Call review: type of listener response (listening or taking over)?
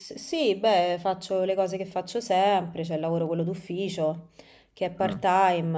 listening